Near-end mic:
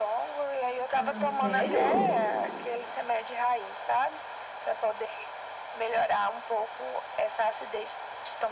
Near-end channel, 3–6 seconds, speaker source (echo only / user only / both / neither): echo only